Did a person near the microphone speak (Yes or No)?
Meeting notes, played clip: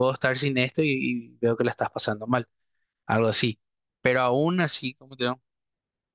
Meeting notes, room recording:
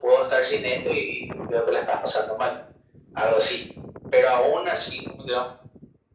No